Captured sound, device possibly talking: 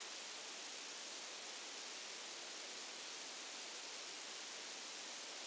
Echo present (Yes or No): No